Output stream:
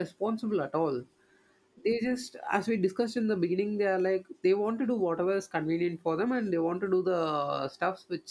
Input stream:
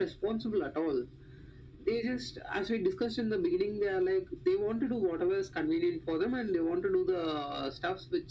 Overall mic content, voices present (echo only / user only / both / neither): echo only